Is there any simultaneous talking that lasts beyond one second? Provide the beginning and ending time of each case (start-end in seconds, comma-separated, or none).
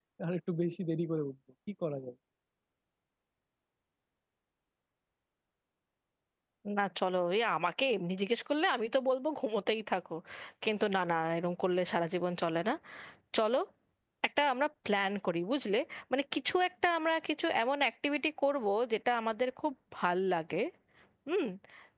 none